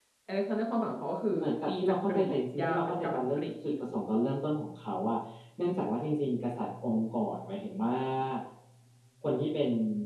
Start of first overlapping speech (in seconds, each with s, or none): 1.3 s